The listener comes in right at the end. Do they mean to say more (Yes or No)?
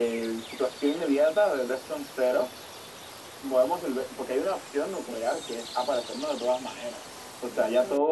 Yes